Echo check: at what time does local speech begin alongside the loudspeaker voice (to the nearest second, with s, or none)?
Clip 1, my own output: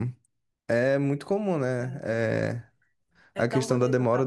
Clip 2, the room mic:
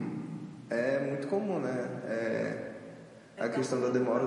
none